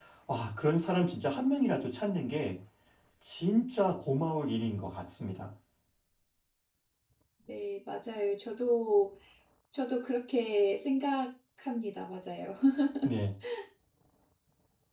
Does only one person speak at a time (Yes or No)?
Yes